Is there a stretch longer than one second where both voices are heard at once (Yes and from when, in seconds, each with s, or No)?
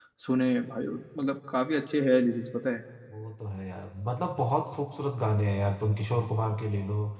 No